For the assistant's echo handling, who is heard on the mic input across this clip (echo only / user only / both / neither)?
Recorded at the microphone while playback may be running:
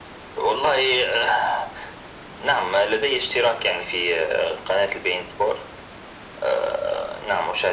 echo only